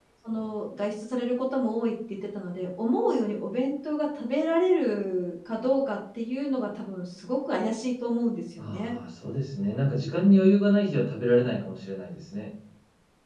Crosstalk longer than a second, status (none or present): none